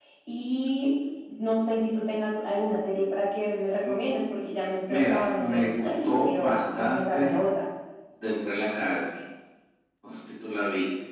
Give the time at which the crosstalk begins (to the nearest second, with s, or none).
5 s